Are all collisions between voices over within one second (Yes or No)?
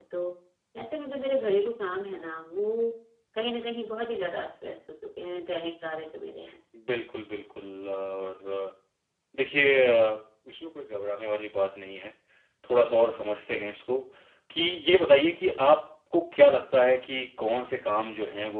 Yes